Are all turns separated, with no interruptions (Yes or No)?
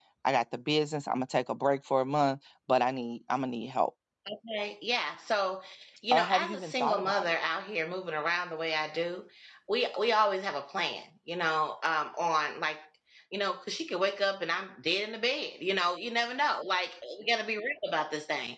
No